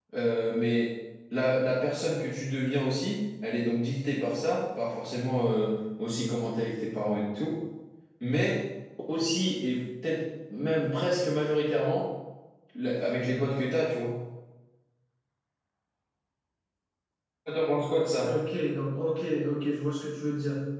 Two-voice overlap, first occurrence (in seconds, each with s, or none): none